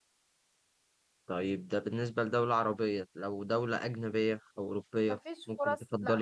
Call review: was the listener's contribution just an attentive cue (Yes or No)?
No